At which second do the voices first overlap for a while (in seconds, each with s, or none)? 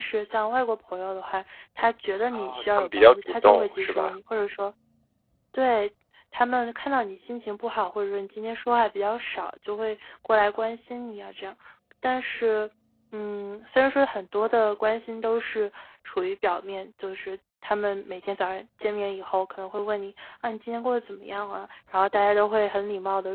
2.3 s